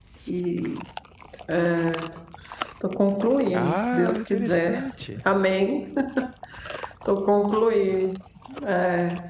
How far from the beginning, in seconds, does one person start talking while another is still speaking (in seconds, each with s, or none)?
3.5 s